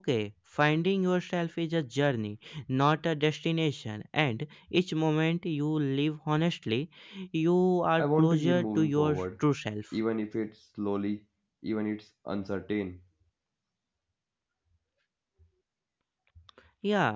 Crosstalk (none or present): present